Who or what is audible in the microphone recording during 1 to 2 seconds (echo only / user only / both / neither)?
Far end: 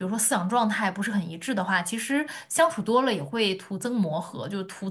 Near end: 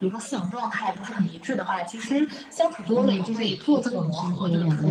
echo only